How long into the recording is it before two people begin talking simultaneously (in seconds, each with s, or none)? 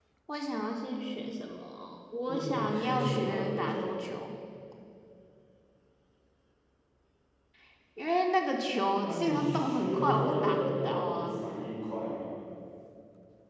2.2 s